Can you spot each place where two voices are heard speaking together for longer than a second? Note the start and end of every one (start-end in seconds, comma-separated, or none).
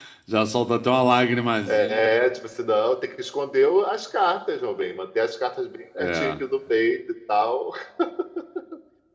none